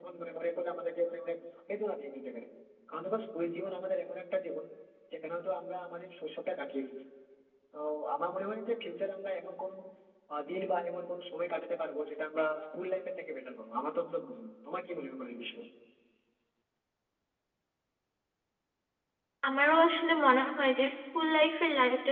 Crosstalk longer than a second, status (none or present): none